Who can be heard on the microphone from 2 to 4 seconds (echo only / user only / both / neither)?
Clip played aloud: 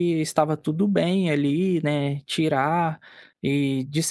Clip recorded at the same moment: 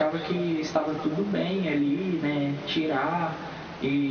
echo only